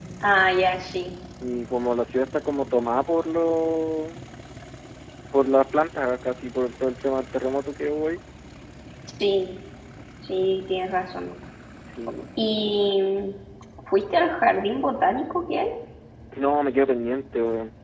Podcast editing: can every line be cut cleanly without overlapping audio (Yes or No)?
Yes